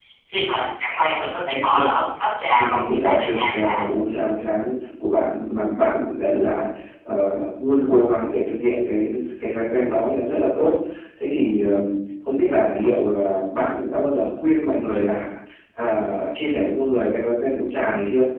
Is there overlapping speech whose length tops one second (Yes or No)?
Yes